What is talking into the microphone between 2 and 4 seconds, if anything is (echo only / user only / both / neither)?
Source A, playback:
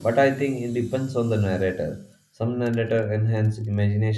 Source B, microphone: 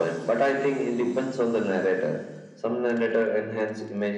echo only